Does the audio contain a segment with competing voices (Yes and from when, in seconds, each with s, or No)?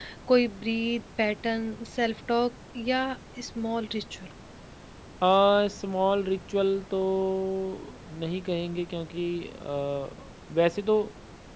No